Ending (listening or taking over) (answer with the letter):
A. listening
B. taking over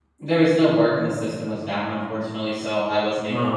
A